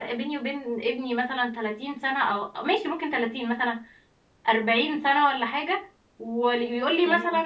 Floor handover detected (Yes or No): No